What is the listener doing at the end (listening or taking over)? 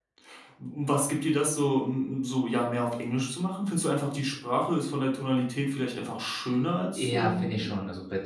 taking over